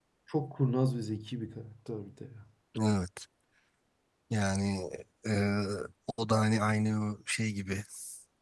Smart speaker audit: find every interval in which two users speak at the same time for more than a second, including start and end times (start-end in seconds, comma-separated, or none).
none